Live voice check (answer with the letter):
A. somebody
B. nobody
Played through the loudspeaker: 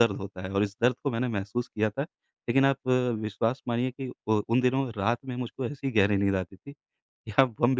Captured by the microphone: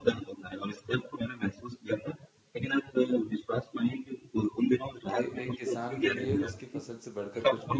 A